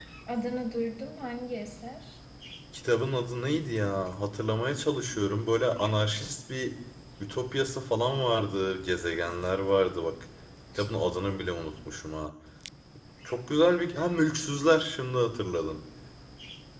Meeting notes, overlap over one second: none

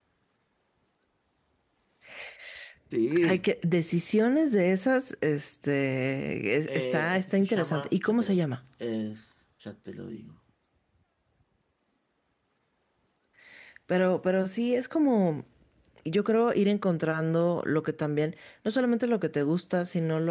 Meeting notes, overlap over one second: present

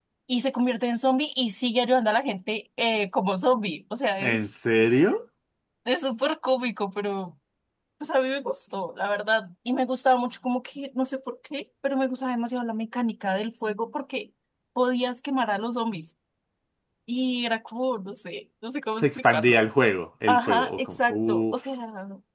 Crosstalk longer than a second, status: present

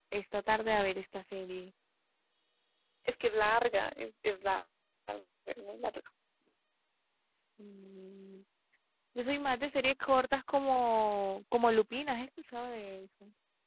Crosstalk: none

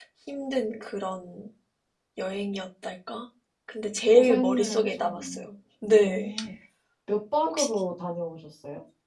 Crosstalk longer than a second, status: present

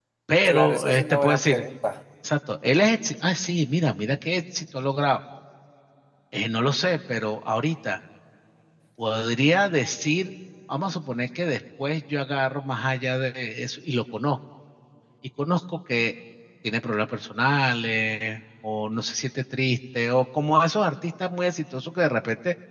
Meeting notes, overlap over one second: present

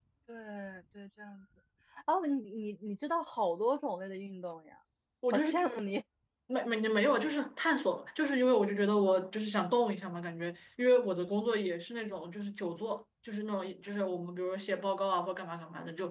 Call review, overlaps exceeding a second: none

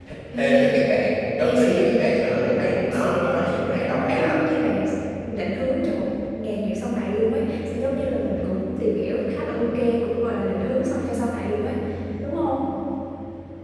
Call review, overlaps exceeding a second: present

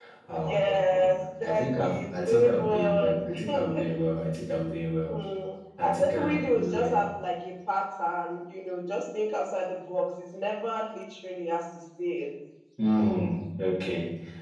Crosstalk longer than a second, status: present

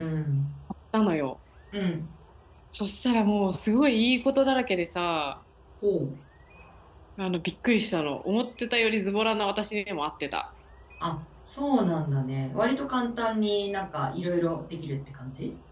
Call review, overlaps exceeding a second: none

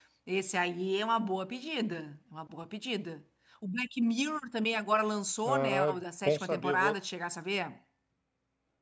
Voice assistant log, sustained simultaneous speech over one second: present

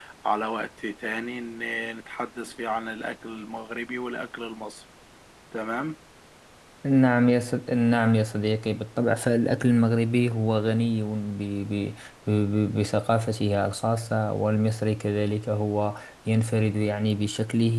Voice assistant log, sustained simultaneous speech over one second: none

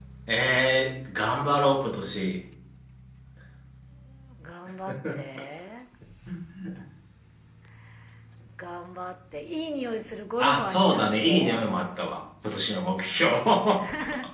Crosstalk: present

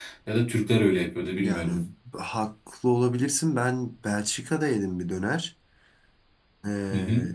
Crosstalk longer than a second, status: none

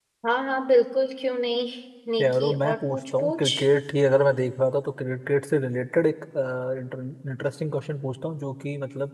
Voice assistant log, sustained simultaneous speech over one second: present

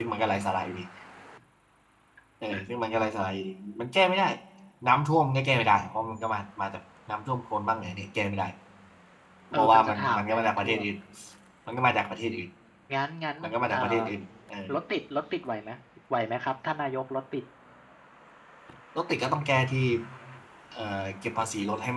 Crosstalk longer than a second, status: present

